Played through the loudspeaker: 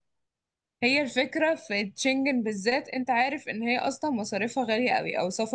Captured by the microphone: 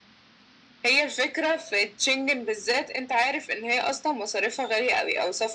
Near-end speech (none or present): none